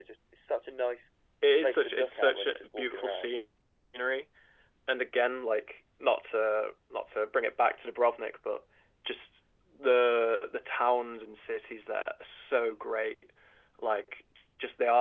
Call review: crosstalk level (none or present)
present